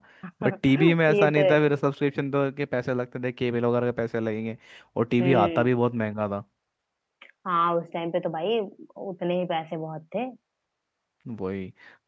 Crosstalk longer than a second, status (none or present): present